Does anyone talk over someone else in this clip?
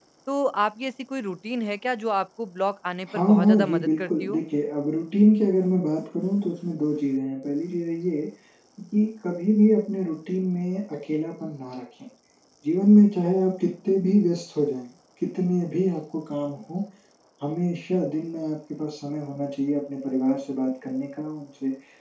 Yes, from 3.1 s

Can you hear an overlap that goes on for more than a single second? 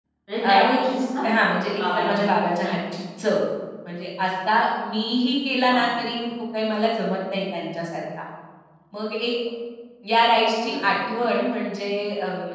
No

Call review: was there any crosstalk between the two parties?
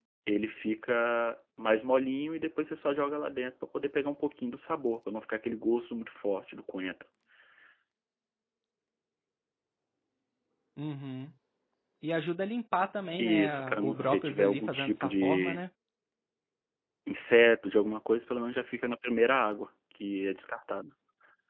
Yes, from 13.2 s

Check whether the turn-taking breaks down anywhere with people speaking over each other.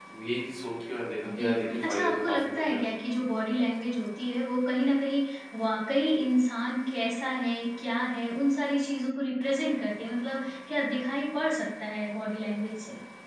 Yes, from 1.2 s

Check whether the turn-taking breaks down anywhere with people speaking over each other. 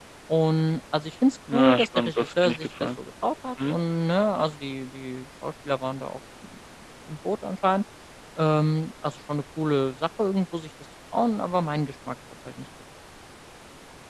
Yes, from 1.5 s

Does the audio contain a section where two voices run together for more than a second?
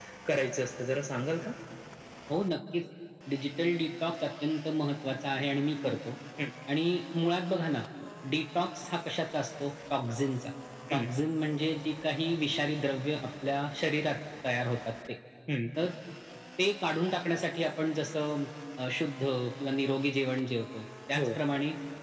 No

